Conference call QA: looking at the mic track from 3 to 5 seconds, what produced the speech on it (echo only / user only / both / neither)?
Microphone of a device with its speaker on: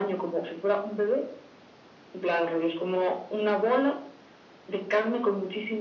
echo only